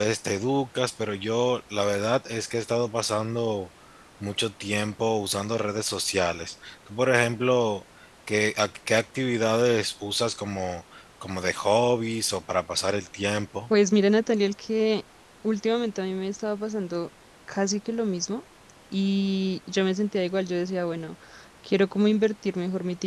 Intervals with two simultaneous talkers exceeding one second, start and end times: none

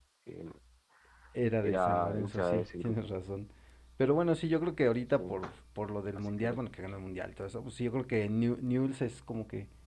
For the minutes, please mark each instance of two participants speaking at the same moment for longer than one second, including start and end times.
1.6-3.0

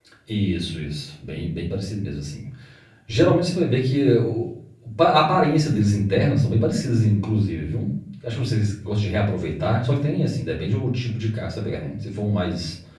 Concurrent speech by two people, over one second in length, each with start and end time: none

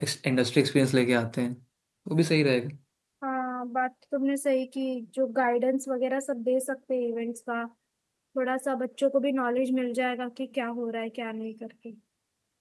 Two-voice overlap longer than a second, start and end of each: none

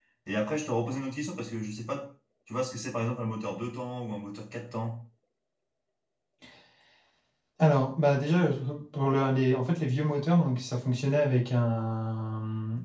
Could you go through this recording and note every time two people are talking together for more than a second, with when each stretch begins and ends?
none

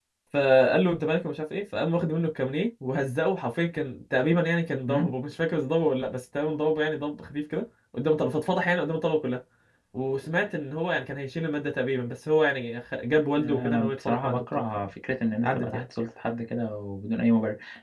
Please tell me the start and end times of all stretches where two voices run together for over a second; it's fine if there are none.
13.4-14.6

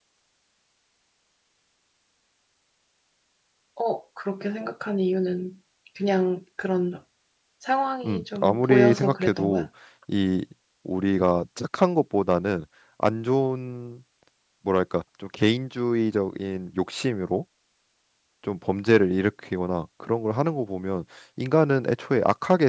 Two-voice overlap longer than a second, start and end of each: 8.0-9.7

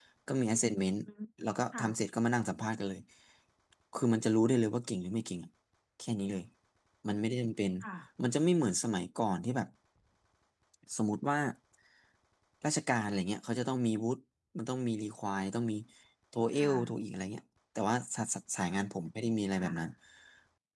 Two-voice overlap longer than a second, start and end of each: none

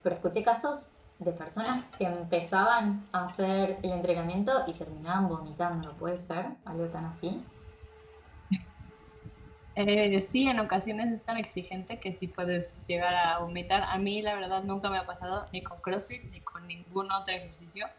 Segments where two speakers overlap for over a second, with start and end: none

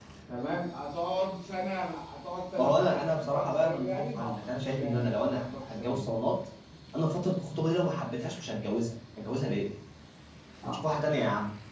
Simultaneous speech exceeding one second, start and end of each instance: 2.6-6.1

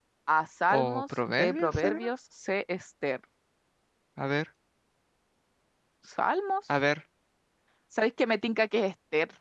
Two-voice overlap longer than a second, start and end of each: 0.8-2.0

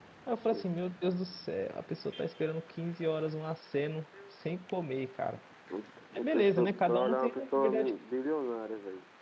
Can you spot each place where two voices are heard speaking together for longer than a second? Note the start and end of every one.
6.2-7.9

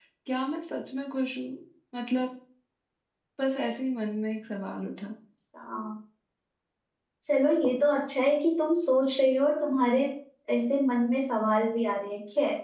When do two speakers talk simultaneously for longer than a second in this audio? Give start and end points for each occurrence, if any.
none

